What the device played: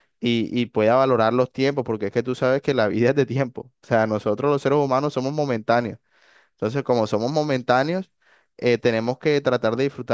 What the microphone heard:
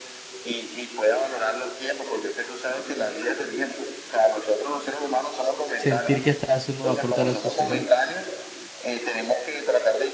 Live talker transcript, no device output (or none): sentir que estás haciendo un aporte a la sociedad.